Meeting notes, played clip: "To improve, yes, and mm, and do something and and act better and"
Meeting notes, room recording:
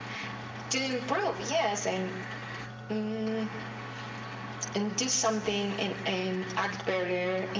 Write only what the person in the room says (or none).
none